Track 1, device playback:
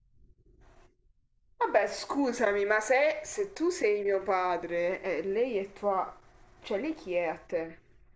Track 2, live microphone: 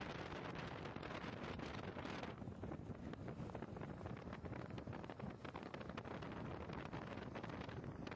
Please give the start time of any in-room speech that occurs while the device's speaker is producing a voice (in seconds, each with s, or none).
none